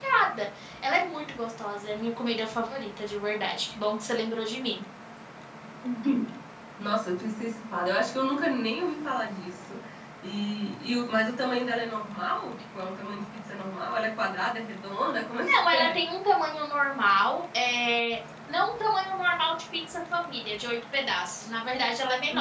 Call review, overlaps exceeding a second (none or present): none